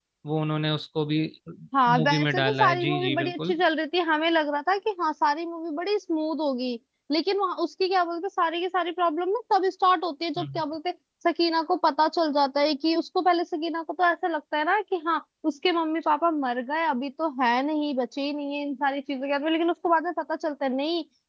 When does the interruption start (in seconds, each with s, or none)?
2.0 s